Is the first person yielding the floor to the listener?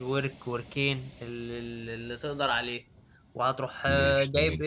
No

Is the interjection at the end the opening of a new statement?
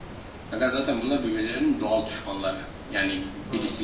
No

